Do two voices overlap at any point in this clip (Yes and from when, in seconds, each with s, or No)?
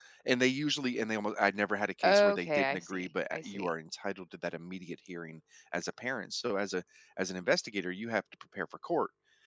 Yes, from 2.0 s